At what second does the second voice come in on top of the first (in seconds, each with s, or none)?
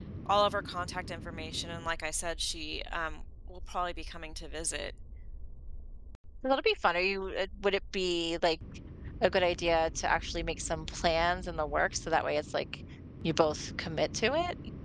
none